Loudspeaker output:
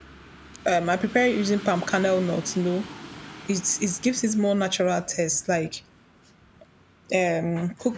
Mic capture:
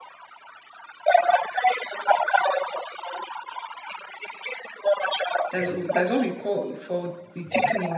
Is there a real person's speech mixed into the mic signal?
Yes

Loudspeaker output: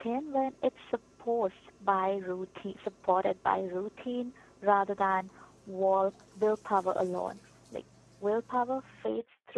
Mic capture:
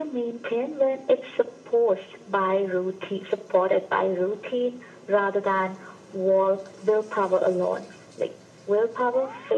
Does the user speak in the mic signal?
No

